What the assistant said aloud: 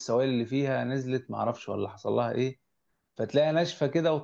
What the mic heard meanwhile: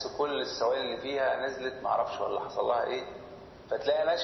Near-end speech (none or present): none